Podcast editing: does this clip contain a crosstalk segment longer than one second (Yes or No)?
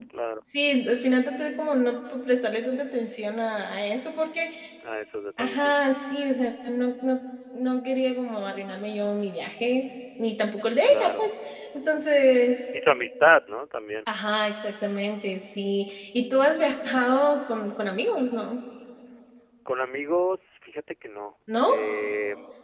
No